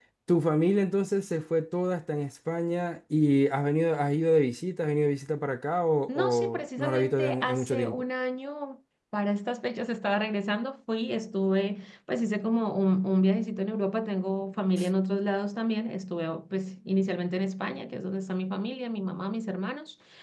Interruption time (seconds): 6 s

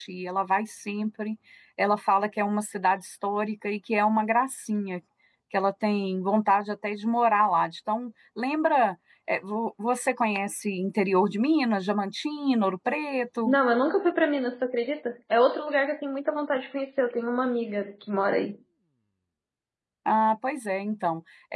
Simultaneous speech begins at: none

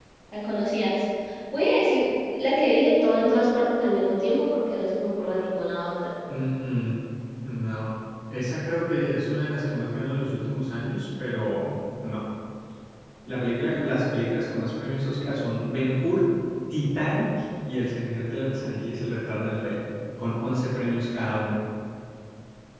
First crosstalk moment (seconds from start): none

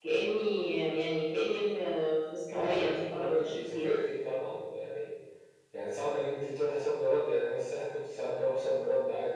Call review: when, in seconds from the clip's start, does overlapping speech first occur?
3 s

